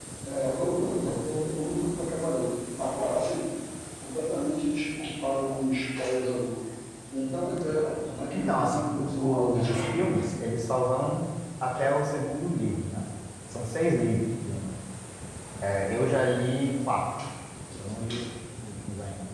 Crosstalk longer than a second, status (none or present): present